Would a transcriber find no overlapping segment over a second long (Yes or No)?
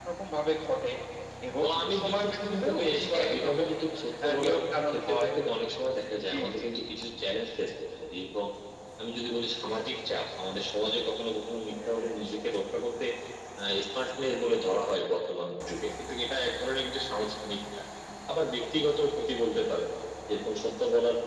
No